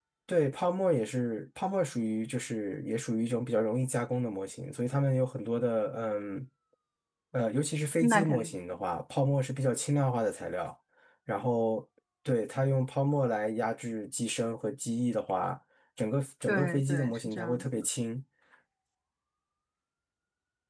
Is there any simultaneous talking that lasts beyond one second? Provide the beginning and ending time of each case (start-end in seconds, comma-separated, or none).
16.5-17.9